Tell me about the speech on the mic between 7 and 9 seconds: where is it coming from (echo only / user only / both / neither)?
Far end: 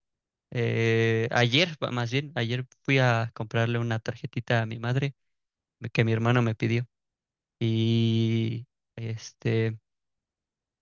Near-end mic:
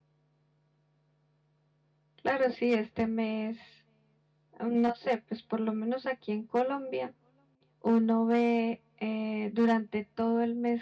user only